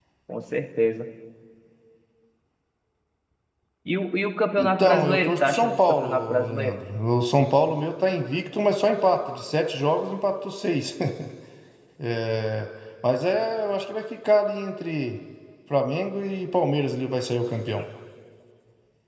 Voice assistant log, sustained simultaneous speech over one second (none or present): present